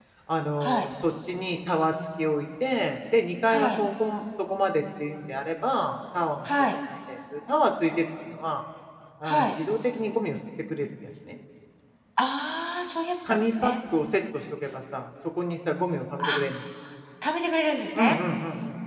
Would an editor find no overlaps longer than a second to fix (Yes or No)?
Yes